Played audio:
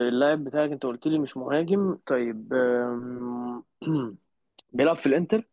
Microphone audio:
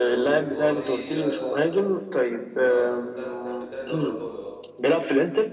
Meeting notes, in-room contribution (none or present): present